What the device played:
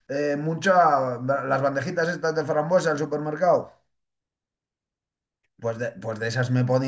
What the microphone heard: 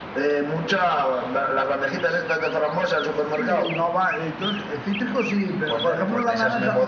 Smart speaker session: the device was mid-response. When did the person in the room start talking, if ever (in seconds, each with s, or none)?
3.3 s